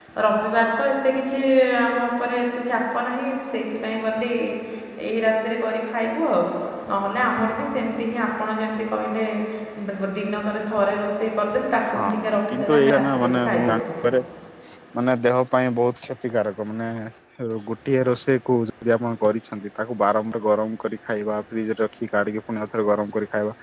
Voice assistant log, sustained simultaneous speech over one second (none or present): present